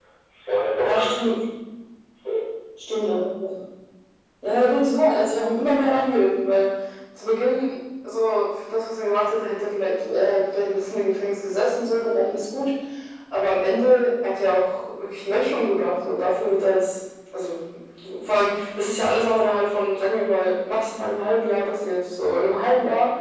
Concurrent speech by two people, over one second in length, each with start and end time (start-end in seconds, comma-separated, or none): none